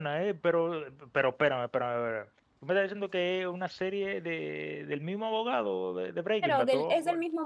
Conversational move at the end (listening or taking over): taking over